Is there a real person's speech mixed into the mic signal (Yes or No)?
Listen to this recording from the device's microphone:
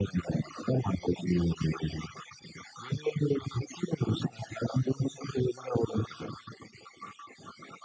No